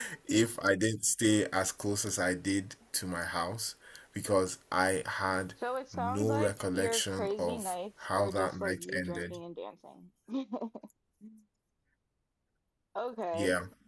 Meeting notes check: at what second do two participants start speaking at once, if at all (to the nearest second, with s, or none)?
6 s